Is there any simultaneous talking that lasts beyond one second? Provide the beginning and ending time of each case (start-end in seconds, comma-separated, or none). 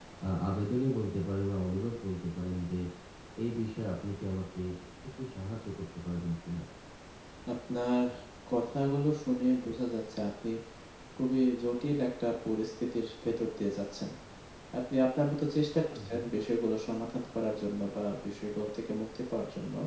none